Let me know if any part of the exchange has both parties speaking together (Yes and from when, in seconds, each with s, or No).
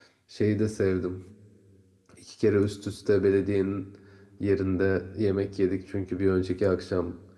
No